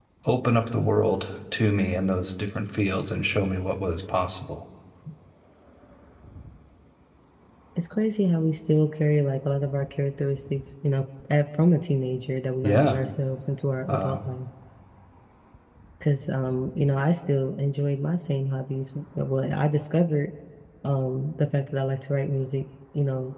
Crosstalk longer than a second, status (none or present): none